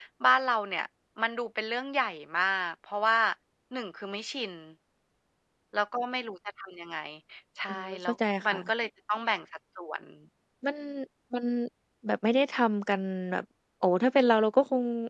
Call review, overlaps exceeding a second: none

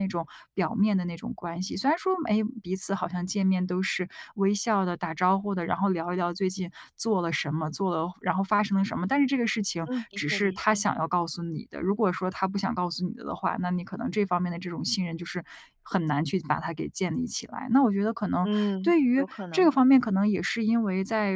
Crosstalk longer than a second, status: present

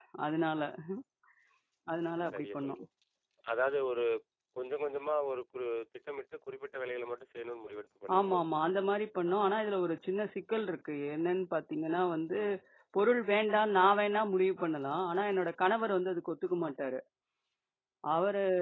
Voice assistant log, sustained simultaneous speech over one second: none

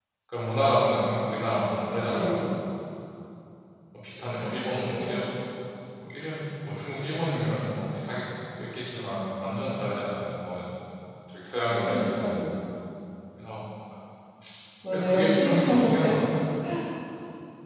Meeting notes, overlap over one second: present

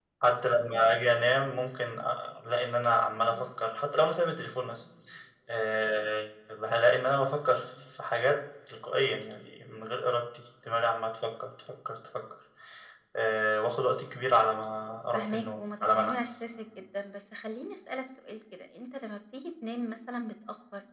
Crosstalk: present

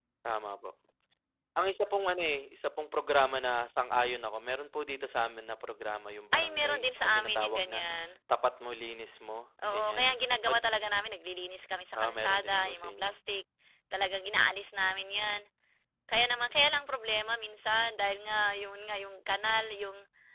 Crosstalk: present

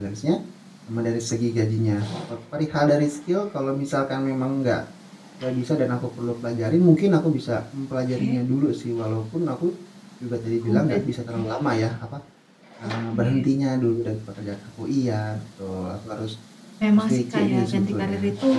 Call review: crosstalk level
present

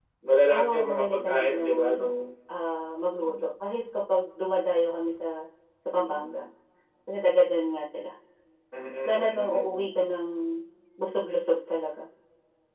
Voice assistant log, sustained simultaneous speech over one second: present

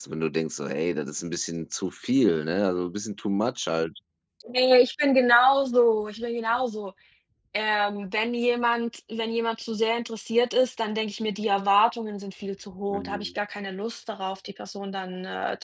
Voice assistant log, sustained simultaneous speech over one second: none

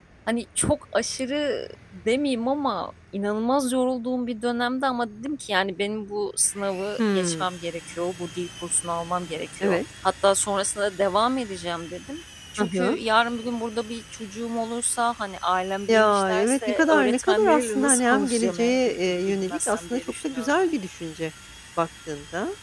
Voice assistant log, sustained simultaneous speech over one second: present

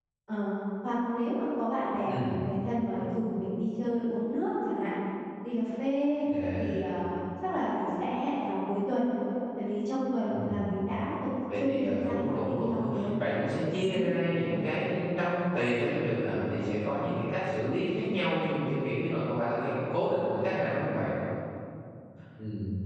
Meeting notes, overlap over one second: present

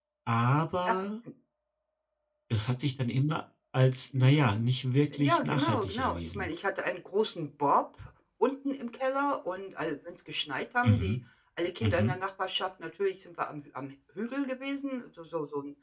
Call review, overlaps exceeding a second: present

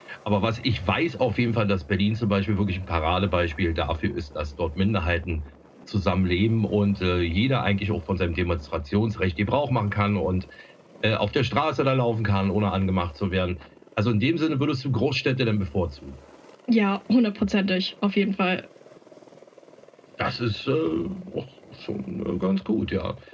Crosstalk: none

